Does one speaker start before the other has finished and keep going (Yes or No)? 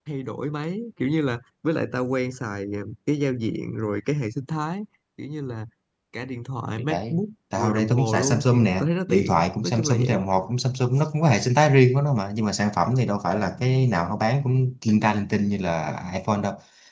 Yes